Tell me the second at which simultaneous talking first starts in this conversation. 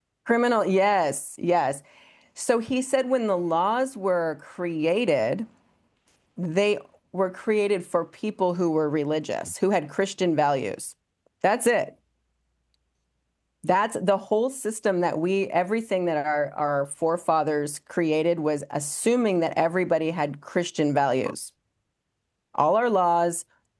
none

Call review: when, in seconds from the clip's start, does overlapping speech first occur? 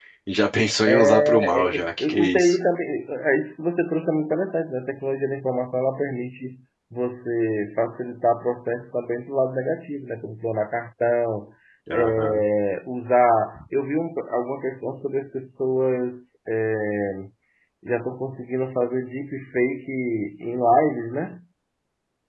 1 s

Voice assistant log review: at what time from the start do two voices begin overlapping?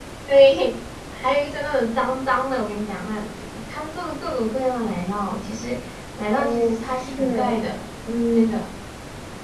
6 s

